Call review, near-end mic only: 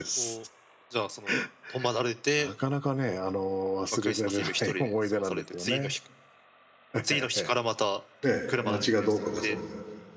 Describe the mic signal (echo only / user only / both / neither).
both